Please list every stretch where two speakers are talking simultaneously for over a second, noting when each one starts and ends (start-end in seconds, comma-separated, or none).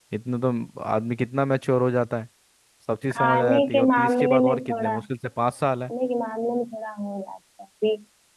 3.1-5.0